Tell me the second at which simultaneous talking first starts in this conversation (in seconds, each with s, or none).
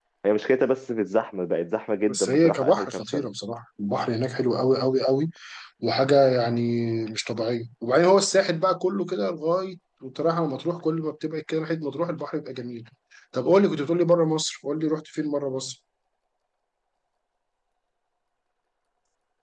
2.1 s